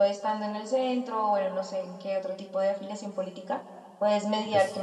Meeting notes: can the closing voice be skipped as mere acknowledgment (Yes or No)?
Yes